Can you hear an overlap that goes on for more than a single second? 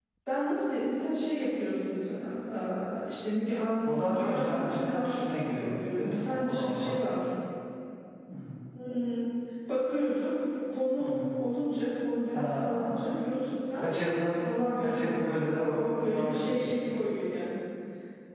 Yes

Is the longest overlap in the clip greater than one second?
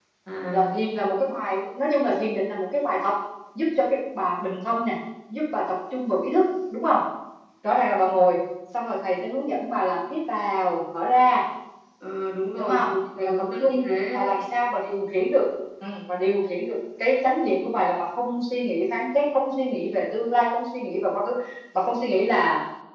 Yes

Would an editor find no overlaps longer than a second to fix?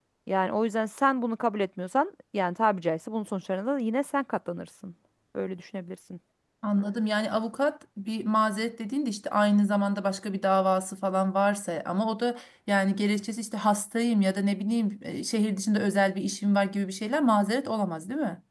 Yes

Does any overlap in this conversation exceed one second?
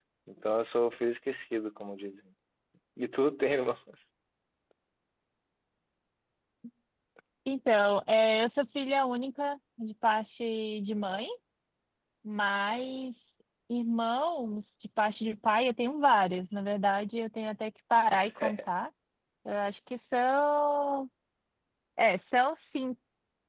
No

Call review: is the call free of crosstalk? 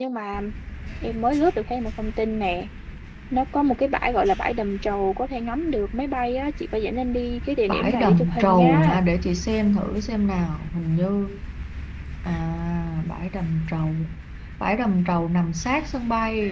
No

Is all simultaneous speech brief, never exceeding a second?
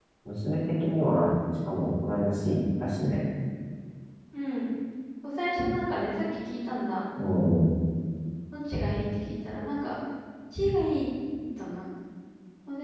Yes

